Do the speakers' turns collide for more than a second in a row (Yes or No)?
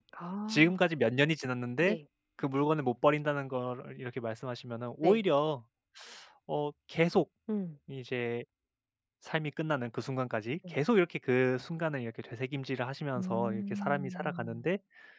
Yes